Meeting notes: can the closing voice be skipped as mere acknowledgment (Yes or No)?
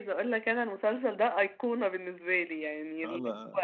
Yes